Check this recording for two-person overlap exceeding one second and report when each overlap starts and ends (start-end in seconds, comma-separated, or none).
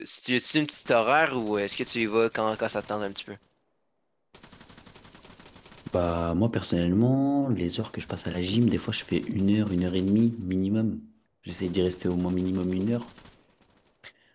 none